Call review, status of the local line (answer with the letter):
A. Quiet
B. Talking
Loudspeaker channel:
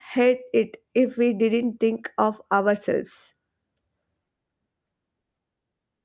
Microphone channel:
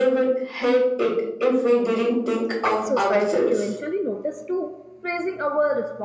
B